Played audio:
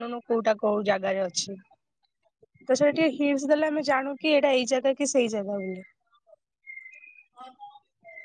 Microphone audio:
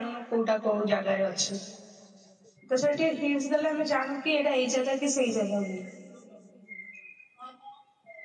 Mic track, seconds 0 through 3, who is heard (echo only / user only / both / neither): echo only